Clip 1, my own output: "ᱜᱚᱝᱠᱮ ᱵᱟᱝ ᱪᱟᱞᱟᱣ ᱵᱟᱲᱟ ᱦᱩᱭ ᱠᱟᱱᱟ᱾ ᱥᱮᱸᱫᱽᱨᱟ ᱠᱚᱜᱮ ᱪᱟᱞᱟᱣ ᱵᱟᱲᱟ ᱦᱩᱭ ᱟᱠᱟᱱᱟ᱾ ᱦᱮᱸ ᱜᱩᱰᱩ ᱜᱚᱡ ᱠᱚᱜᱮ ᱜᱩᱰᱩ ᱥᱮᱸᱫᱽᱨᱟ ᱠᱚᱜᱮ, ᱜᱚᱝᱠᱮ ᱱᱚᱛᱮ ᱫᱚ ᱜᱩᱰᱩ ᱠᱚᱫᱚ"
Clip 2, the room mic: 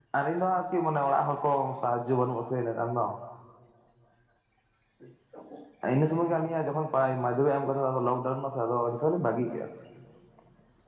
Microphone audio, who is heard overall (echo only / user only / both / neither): user only